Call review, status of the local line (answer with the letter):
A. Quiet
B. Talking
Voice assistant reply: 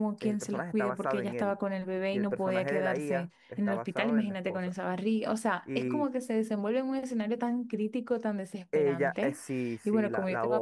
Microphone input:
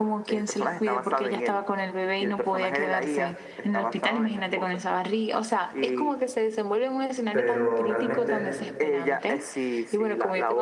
B